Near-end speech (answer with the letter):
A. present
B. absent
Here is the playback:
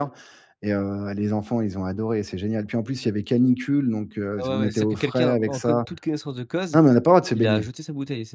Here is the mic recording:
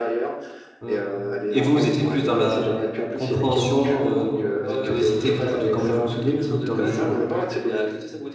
A